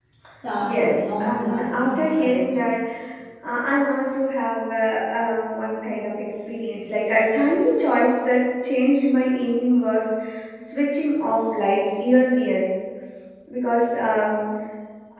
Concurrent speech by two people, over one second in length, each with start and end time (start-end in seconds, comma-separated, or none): 0.6-2.5